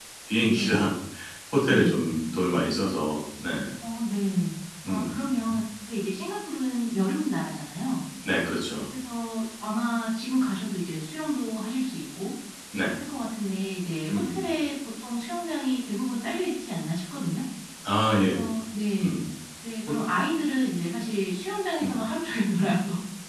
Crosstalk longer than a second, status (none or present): none